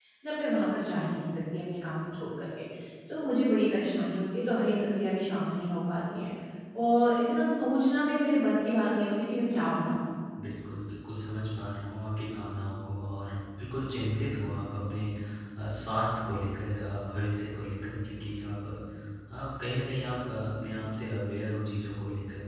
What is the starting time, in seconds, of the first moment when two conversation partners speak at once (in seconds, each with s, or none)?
none